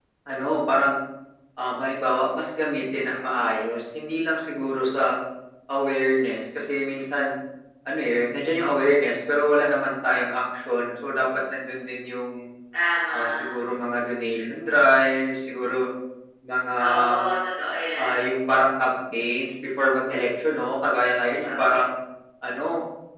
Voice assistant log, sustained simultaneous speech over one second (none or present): none